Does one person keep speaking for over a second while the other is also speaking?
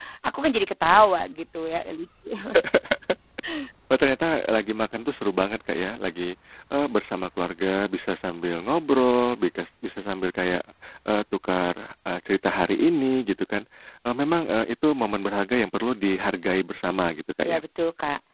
No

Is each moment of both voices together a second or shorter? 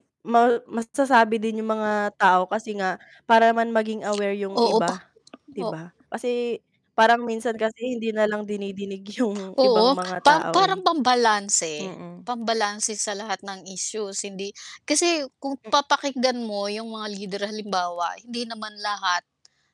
No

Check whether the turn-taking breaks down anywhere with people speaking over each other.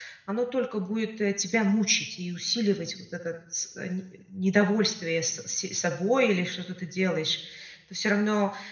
No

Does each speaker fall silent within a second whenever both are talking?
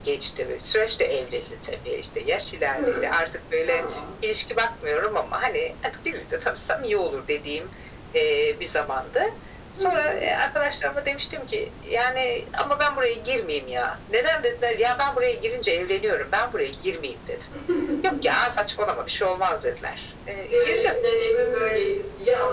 Yes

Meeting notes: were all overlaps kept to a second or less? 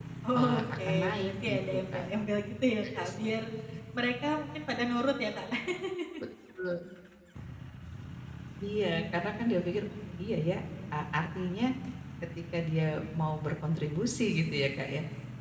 No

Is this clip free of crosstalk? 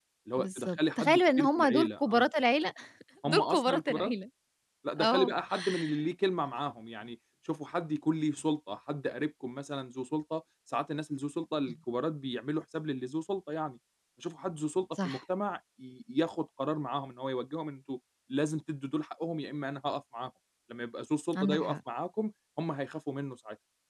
No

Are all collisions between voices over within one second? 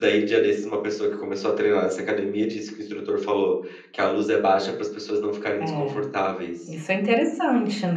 Yes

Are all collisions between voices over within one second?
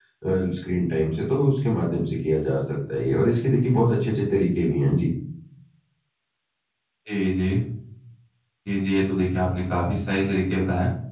Yes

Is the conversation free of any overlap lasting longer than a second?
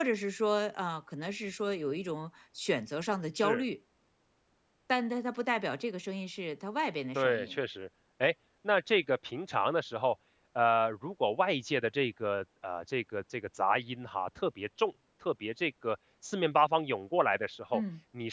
Yes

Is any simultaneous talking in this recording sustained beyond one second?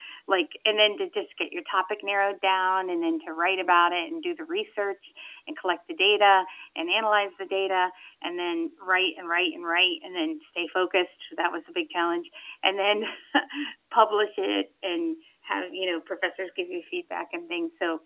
No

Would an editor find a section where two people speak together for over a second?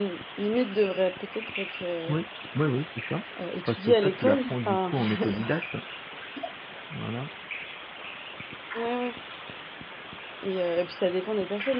Yes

